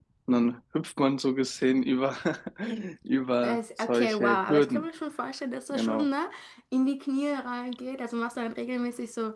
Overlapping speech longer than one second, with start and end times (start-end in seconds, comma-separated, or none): 3.4-4.8